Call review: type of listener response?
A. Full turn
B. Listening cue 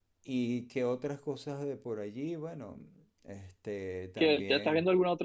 A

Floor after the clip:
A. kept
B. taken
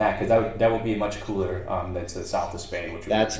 A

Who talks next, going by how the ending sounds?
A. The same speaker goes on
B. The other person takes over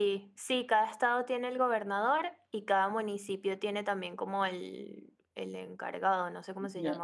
B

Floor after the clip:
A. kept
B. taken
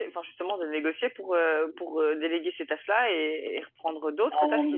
B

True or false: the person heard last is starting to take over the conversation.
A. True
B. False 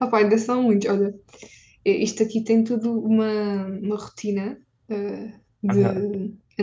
B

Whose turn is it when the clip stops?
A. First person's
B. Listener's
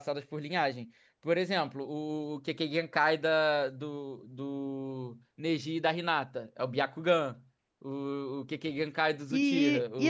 B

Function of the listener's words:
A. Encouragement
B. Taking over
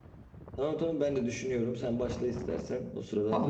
B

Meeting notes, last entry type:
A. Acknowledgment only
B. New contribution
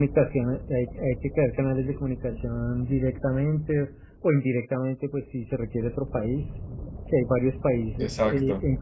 A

